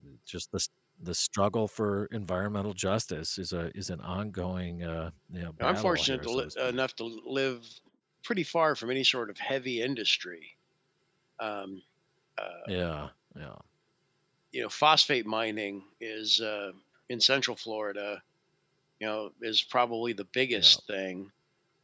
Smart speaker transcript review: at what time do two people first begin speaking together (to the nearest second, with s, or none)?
6 s